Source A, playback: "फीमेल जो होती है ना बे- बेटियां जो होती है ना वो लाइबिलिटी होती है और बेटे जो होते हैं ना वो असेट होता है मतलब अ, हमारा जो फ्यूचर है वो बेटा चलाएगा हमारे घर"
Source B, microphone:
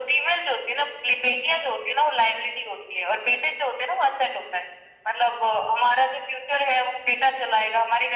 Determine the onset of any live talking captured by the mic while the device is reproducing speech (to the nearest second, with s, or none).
none